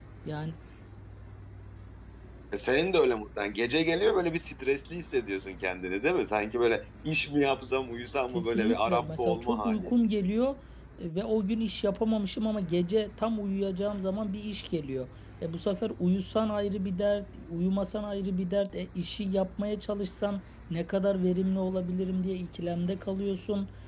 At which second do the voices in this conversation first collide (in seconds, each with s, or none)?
8.3 s